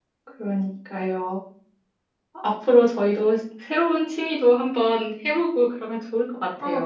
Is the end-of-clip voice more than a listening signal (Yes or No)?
Yes